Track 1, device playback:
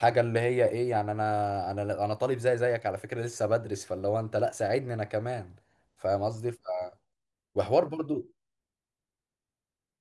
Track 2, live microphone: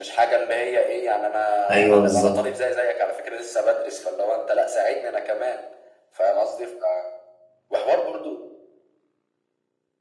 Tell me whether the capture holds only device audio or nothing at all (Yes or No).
No